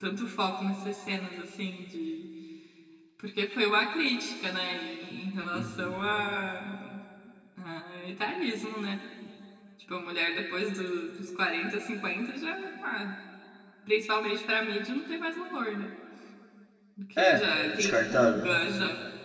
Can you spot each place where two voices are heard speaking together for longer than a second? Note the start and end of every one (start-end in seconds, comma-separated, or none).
17.2-18.6